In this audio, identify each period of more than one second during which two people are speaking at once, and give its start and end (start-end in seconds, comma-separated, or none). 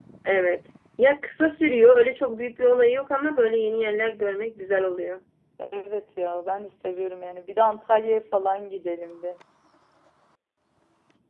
none